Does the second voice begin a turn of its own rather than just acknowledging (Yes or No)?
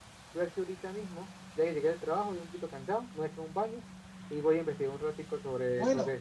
Yes